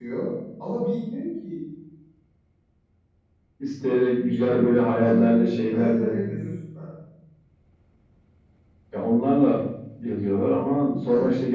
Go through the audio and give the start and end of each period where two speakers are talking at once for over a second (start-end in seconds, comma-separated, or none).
4.4-6.1